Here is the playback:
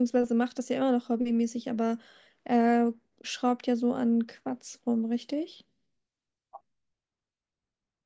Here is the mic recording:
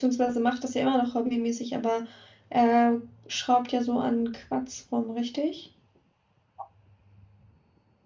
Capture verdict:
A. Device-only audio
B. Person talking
A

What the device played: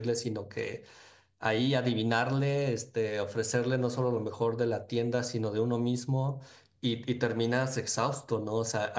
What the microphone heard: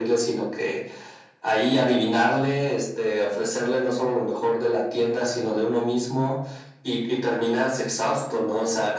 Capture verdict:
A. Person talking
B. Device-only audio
B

